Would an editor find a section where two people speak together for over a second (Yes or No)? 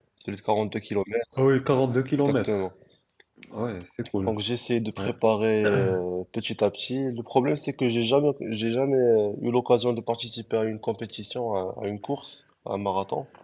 No